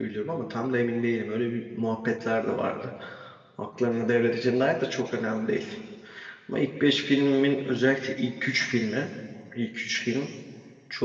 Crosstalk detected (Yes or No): No